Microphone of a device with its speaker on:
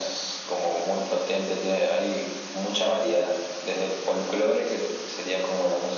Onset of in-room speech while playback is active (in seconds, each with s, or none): none